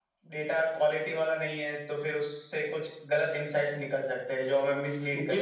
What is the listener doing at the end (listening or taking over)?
taking over